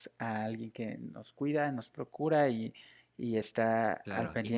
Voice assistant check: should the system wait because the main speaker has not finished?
No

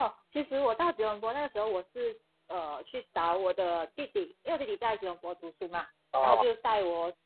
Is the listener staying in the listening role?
Yes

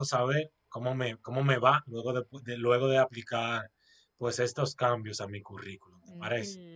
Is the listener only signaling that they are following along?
No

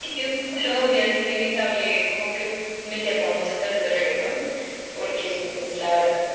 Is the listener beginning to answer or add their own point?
No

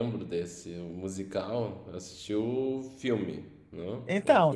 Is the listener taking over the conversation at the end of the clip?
Yes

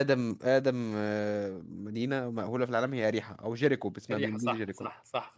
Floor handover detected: Yes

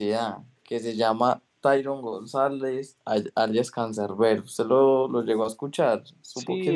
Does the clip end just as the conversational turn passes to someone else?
Yes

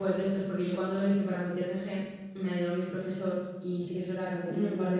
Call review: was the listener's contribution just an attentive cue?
Yes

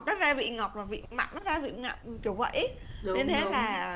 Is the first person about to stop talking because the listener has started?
No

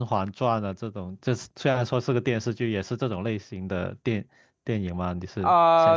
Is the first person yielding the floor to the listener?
Yes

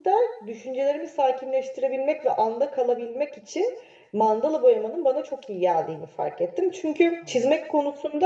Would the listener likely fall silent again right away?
Yes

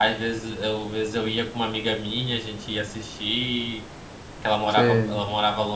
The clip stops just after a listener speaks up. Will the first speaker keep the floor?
Yes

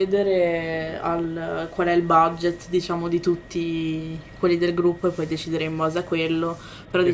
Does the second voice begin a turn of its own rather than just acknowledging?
Yes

